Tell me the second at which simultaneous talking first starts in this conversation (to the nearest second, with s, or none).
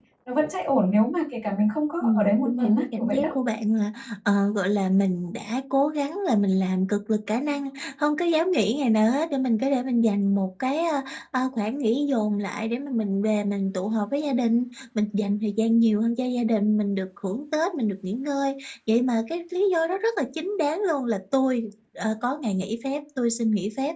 2 s